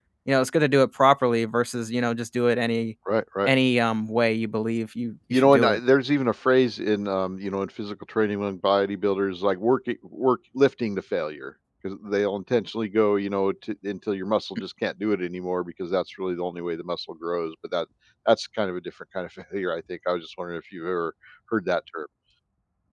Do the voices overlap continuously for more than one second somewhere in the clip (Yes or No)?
No